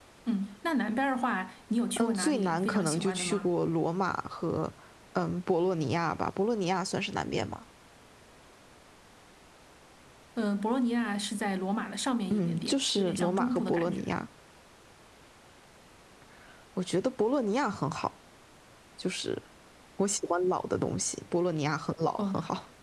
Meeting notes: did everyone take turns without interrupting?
No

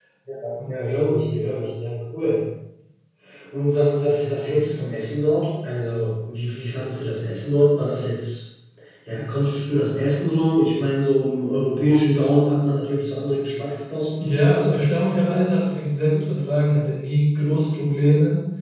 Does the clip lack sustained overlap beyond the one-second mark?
Yes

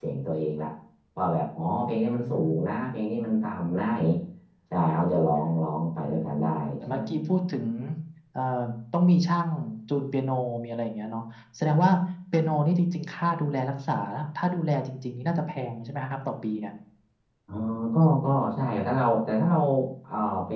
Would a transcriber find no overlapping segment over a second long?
No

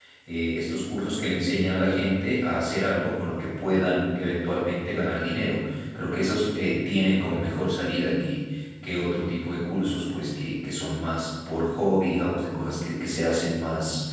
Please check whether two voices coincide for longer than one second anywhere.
No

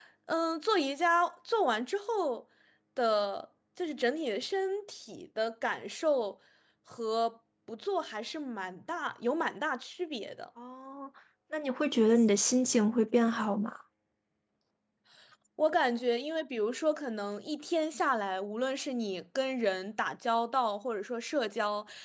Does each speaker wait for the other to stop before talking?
Yes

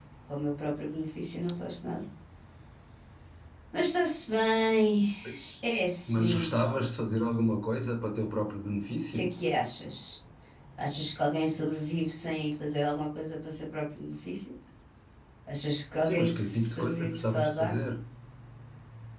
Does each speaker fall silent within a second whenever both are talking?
No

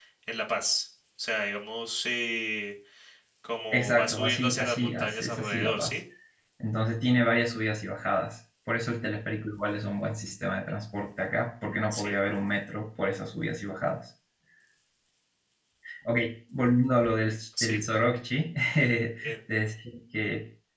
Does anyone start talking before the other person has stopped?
Yes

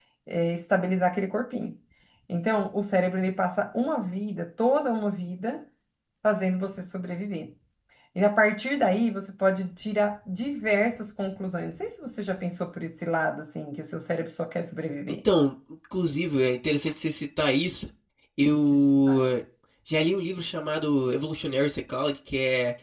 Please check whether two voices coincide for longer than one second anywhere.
No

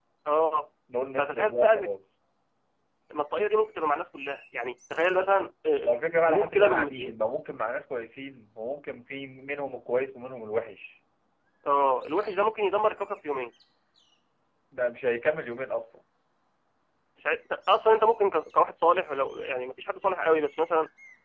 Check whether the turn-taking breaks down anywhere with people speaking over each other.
Yes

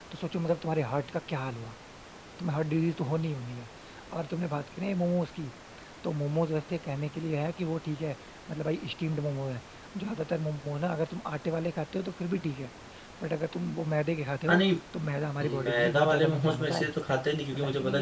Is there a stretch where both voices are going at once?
Yes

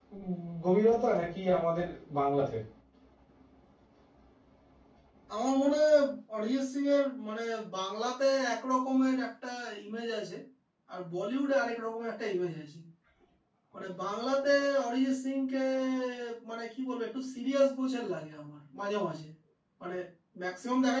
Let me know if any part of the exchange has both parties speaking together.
No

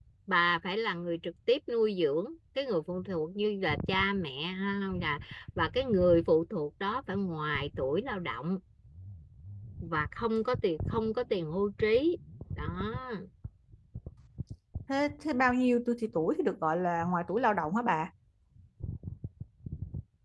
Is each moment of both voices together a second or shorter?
Yes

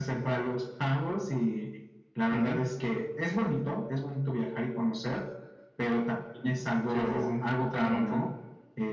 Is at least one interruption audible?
Yes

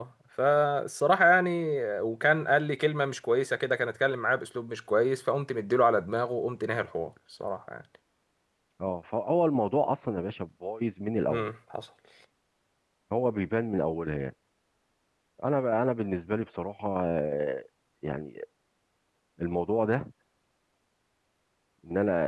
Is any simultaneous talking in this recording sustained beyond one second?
No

